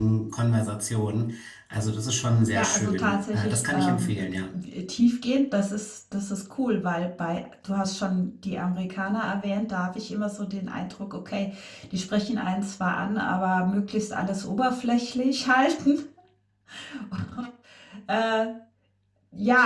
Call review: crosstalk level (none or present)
present